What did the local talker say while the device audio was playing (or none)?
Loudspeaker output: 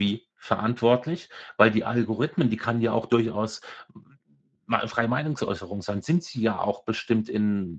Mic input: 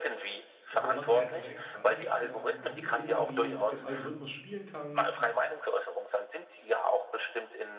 So machen es ja extra, ne? Dass du da nie irgendwie mit dem Algorithmus spielen kannst, dich